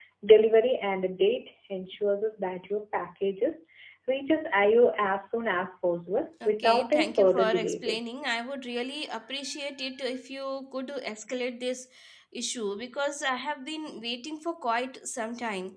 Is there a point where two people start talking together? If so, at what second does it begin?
6.4 s

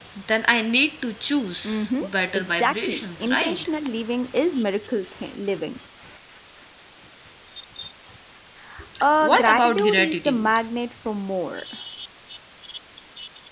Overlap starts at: 1.6 s

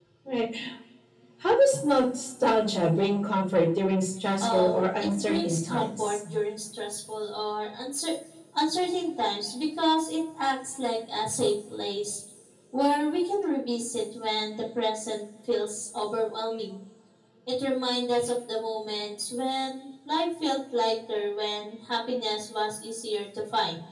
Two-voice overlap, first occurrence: 4.4 s

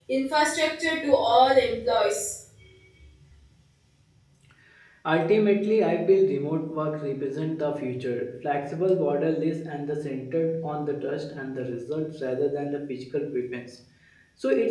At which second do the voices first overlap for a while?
none

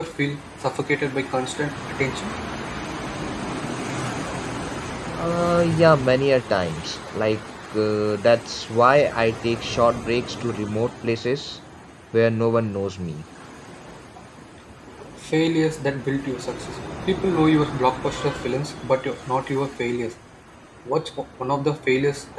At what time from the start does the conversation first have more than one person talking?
none

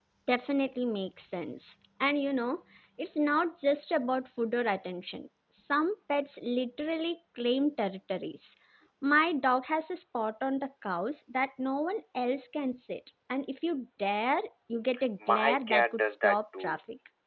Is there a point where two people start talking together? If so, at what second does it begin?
15.2 s

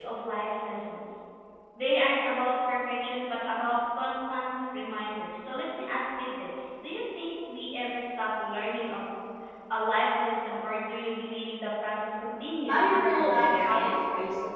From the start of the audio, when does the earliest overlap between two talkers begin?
12.7 s

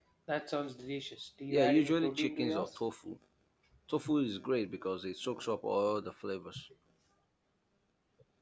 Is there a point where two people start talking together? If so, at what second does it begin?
1.5 s

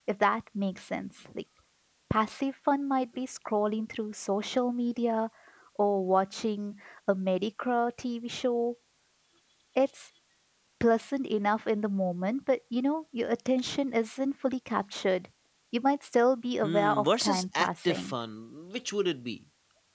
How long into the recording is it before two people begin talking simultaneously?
16.6 s

